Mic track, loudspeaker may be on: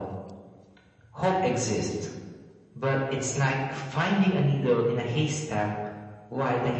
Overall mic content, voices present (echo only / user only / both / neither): echo only